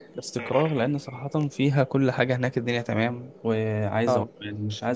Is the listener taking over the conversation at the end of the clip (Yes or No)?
No